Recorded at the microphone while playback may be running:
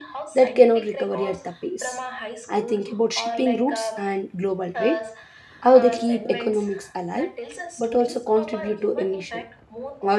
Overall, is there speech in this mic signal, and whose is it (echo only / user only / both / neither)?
both